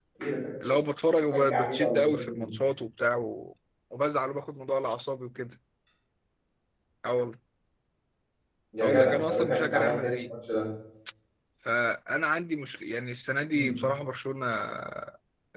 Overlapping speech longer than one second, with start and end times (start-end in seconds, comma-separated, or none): 1.3-2.5, 8.8-10.3